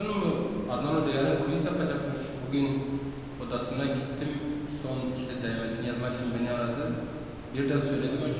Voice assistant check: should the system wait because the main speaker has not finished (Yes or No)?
Yes